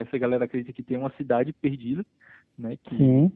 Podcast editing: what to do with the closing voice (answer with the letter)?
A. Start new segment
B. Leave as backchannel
B